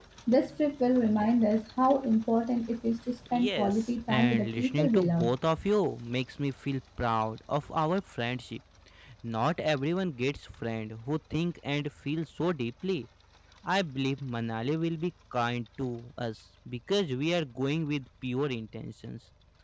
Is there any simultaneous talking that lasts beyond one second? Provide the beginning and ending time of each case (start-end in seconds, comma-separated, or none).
3.3-5.3